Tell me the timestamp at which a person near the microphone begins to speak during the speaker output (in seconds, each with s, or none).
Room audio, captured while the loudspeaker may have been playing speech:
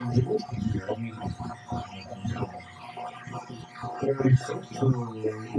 none